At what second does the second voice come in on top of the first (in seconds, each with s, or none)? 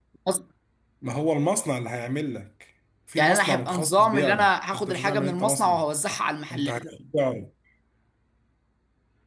3.2 s